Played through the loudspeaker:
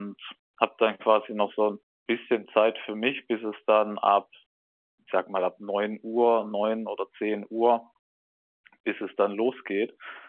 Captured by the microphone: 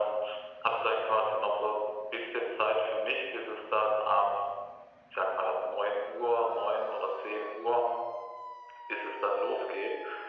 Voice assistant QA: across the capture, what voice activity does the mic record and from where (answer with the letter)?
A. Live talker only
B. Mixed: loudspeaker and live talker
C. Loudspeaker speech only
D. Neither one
C